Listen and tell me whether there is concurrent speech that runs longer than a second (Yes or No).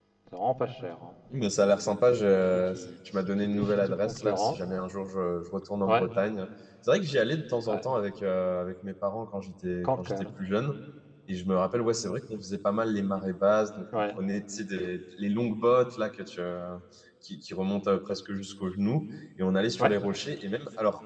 Yes